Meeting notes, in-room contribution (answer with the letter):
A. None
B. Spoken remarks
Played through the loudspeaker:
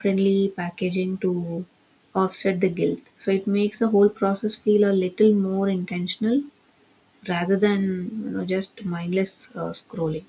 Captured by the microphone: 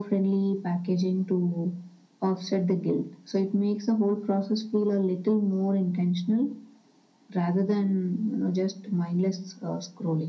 A